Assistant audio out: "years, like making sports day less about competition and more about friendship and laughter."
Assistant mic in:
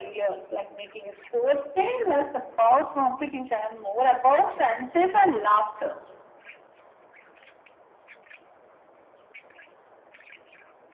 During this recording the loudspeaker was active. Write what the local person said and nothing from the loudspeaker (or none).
none